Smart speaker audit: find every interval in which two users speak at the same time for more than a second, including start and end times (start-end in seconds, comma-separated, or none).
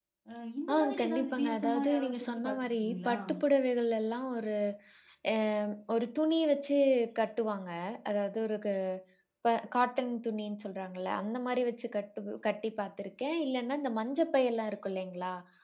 0.7-3.2